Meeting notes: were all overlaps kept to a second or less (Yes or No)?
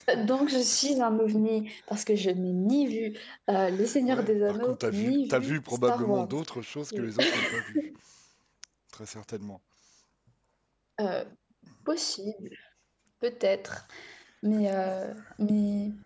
No